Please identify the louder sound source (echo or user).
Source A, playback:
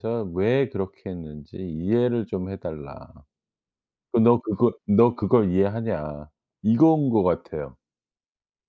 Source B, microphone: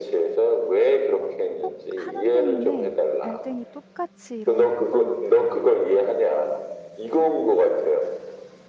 echo